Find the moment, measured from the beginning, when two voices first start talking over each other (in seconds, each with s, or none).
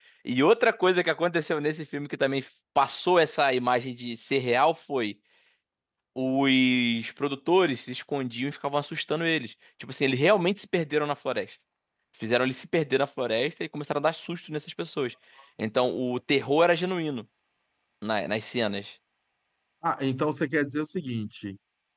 none